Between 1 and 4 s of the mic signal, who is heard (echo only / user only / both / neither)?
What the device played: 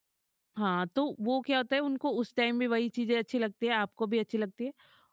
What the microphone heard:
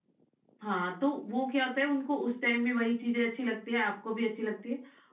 echo only